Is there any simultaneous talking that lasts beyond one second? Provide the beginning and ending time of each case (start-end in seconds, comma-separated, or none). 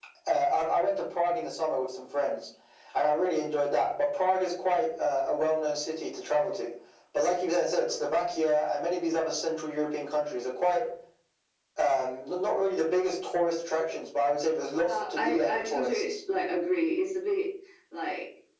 14.8-16.1